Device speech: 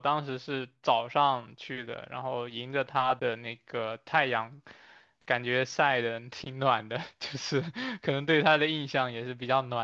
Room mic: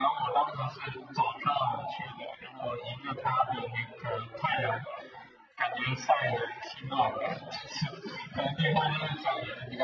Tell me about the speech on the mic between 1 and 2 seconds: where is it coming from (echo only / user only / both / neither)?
echo only